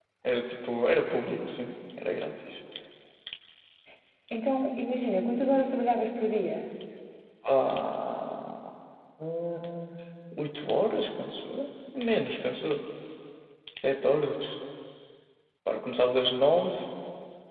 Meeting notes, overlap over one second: none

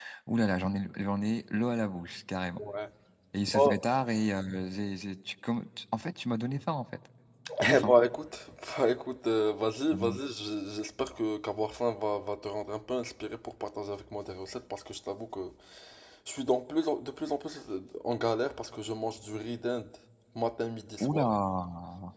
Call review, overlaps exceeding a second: none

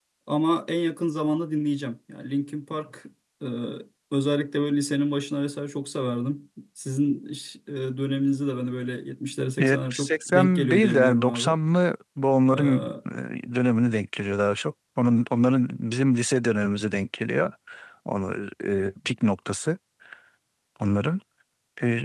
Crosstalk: present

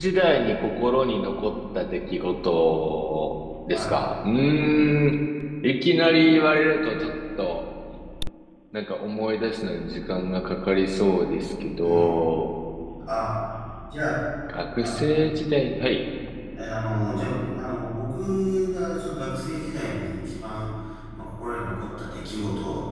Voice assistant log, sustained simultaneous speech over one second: none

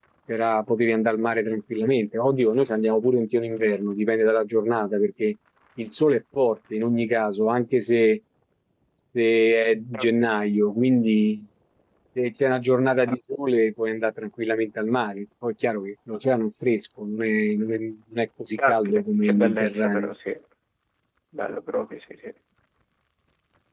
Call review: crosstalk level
present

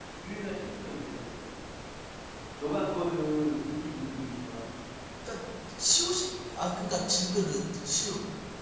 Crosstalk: none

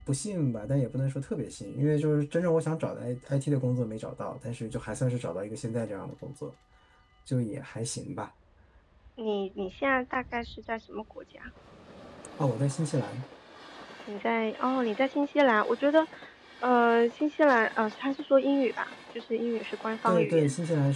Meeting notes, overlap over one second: none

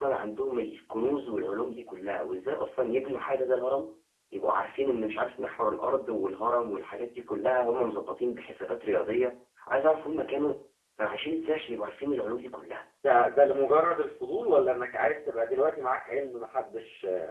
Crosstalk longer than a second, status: none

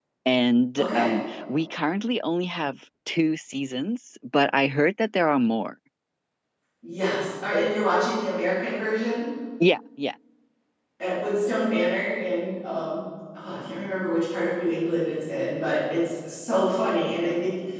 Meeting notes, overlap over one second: none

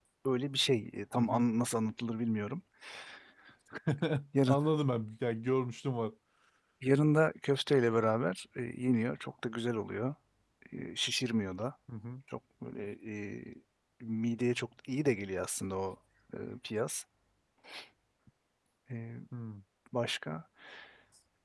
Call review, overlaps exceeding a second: none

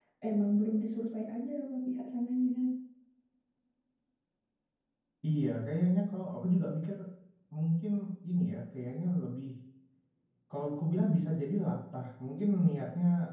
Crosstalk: none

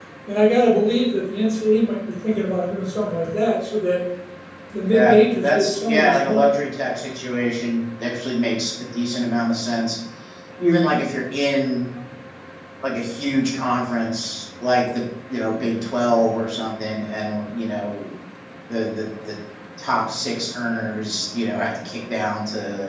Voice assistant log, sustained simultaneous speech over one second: present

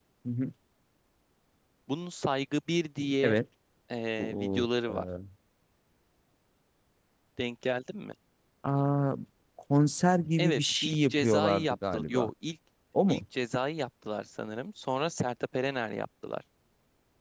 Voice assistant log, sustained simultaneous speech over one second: present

